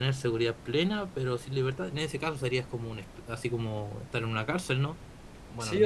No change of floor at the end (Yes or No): No